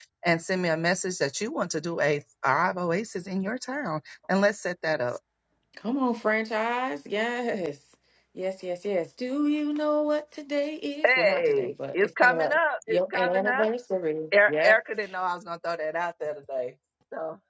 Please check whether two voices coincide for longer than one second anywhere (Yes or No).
Yes